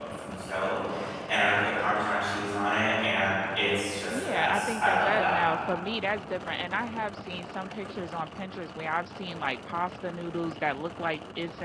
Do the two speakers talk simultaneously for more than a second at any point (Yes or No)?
Yes